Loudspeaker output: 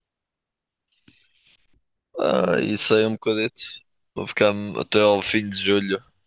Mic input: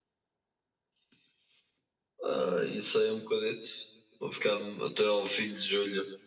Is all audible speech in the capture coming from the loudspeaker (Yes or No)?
Yes